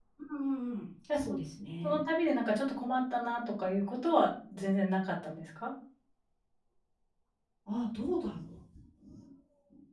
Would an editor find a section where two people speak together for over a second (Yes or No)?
No